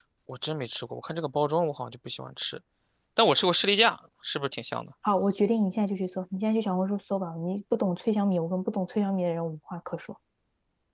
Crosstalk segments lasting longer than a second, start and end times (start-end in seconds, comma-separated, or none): none